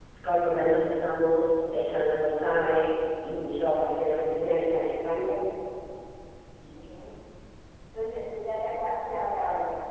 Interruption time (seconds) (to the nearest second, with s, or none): none